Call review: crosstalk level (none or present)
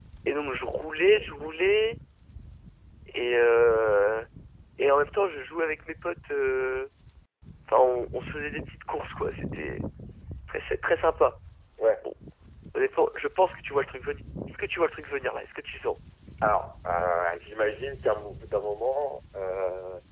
none